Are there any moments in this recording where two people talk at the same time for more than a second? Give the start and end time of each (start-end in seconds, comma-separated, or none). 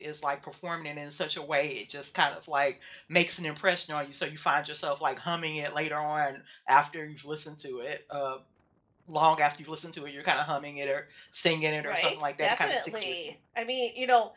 11.8-13.1